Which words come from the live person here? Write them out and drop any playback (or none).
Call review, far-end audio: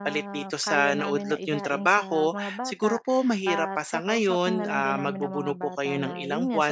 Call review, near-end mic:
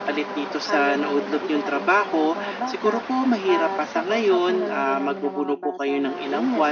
none